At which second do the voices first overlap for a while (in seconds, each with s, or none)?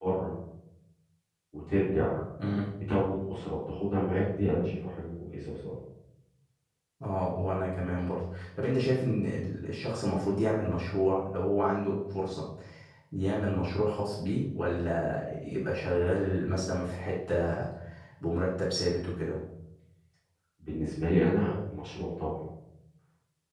none